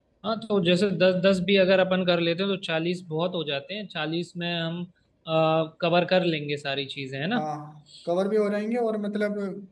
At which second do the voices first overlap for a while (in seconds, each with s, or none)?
none